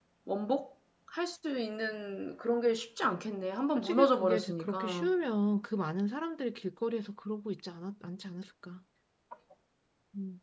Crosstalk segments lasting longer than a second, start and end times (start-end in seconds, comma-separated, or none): 3.8-5.1